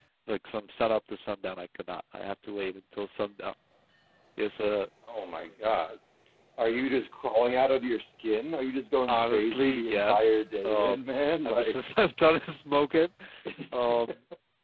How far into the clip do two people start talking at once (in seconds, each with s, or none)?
9.1 s